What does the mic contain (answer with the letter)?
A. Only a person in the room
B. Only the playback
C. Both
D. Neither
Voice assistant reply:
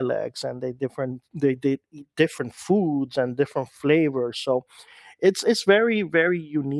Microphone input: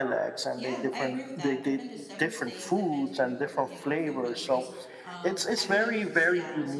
C